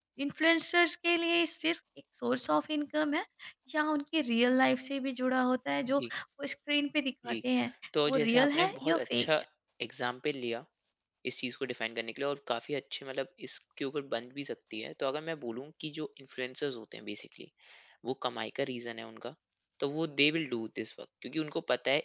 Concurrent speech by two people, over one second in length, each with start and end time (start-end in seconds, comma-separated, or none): 8.1-9.3